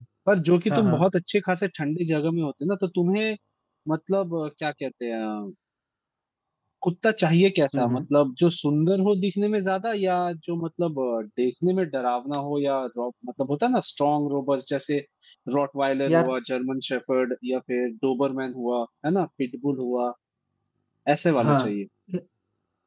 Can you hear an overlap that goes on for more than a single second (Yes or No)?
No